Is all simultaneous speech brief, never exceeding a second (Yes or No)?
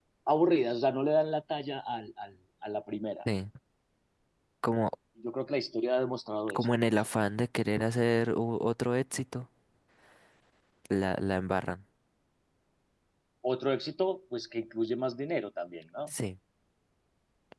Yes